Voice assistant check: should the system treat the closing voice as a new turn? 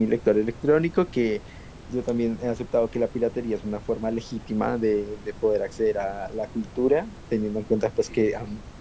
No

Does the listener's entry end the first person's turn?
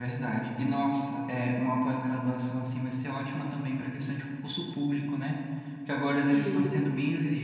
No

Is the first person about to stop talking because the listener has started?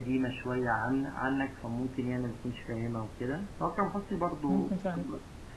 No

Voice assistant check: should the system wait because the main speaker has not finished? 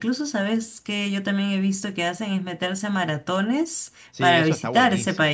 No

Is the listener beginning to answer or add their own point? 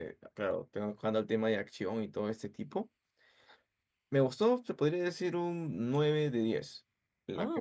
No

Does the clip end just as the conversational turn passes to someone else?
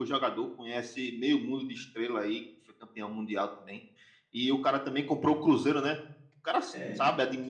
No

